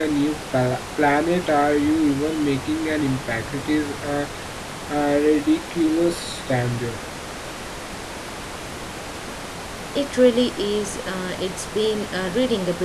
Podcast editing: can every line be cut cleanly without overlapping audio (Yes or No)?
Yes